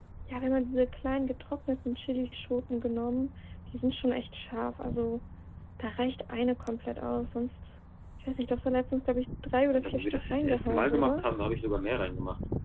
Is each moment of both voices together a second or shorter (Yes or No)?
No